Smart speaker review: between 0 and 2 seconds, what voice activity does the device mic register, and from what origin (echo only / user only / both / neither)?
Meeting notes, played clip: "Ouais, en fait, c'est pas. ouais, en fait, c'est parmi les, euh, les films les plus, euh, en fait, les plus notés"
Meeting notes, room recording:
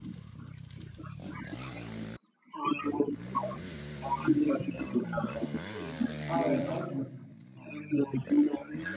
neither